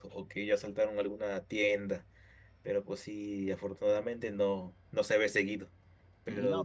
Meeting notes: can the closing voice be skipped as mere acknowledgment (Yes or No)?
Yes